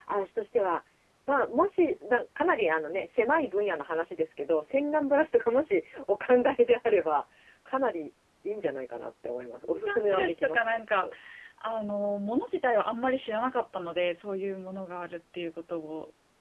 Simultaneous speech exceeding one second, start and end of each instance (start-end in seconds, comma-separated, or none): 9.6-11.1